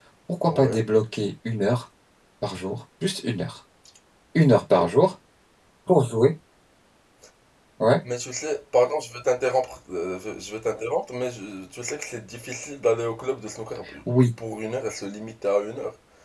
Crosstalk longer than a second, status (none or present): none